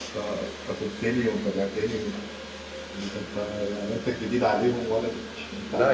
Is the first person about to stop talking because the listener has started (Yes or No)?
Yes